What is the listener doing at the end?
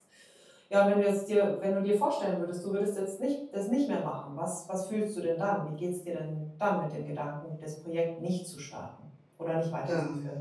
taking over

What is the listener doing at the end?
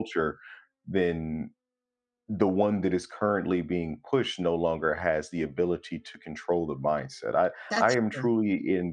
listening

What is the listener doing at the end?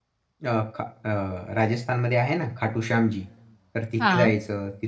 listening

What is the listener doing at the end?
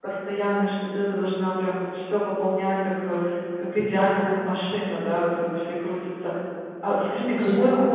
listening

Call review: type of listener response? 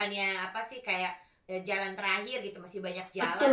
taking over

